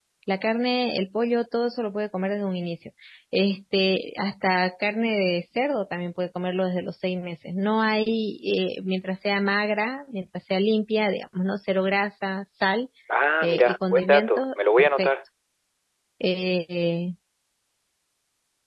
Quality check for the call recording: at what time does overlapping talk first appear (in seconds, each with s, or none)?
13.4 s